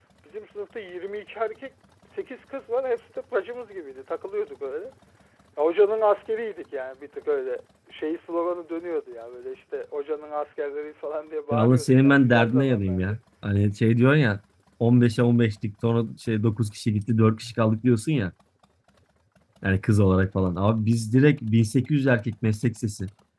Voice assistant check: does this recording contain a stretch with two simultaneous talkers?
Yes, from 11.5 s

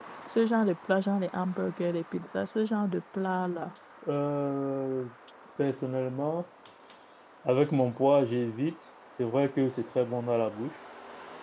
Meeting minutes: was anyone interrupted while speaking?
No

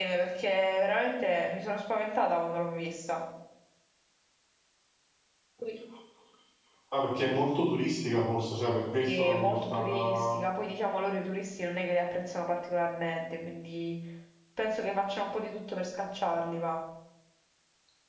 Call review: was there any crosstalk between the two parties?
Yes, from 9.0 s

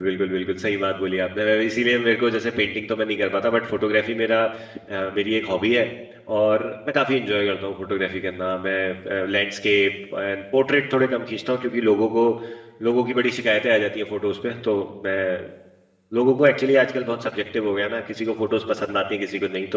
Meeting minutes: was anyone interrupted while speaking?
No

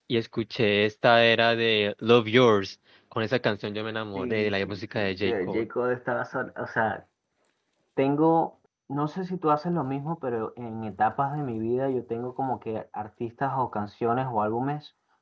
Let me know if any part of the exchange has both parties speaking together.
Yes, from 4.2 s

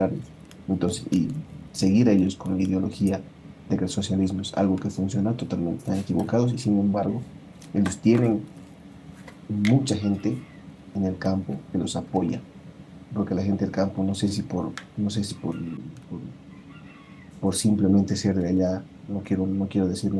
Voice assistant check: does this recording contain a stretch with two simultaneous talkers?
No

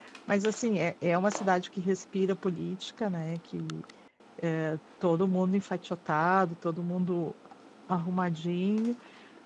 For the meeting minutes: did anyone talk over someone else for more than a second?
No

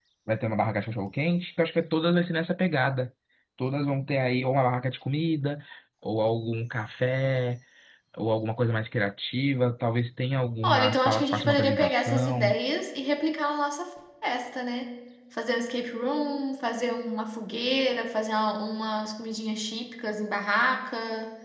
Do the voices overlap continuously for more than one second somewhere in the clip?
Yes, from 10.6 s

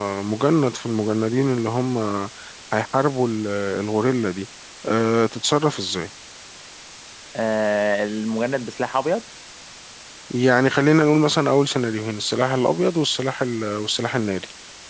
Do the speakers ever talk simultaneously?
No

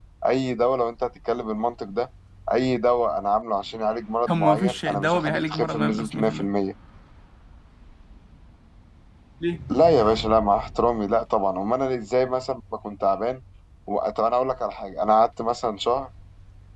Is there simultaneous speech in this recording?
Yes, from 4.3 s

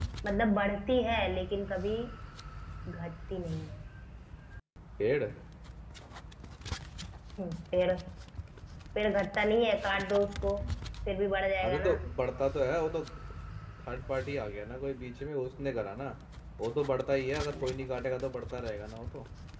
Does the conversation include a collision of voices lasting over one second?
No

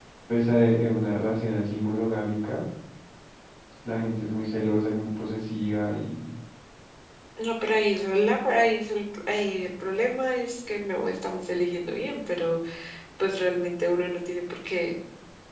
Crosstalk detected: No

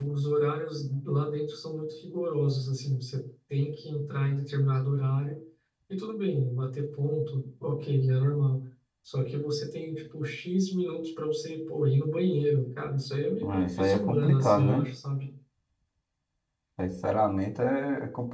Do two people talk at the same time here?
Yes, from 13.4 s

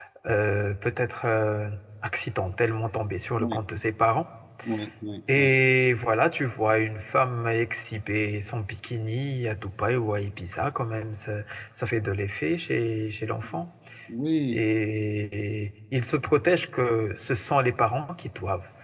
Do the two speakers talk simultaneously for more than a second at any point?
No

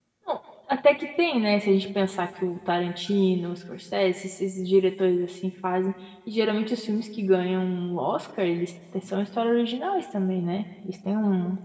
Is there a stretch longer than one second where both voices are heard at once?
No

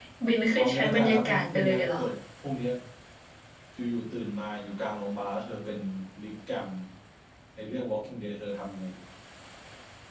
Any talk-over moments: Yes, from 0.6 s

